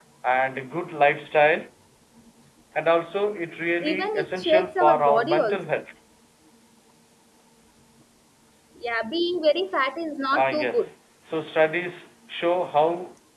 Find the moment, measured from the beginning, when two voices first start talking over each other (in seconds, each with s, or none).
3.8 s